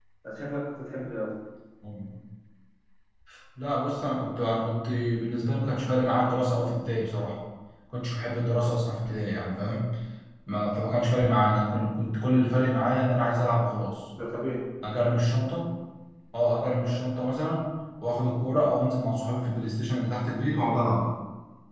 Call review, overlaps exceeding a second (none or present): none